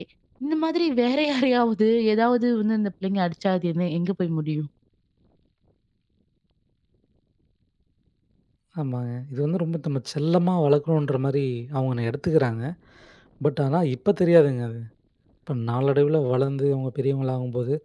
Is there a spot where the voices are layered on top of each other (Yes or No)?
No